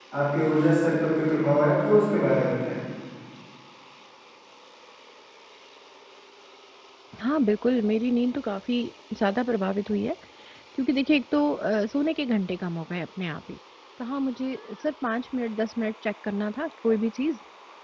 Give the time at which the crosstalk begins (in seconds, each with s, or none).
none